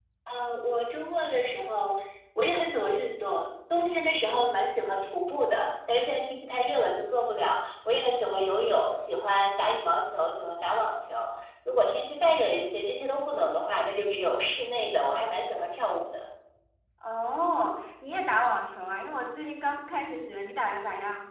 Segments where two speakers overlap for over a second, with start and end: none

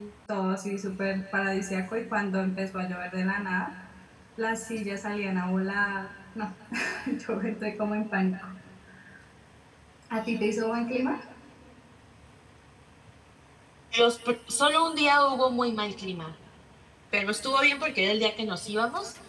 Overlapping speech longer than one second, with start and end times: none

